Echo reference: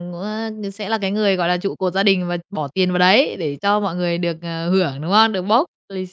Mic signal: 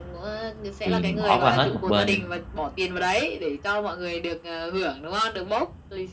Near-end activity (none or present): present